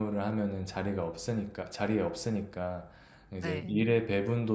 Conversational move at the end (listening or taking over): listening